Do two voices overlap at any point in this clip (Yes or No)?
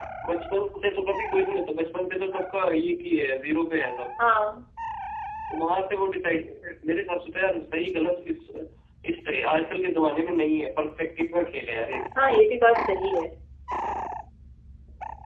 No